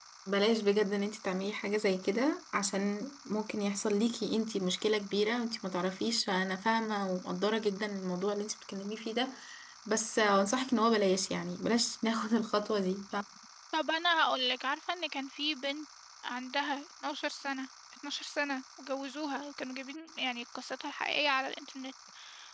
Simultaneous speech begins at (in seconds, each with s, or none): none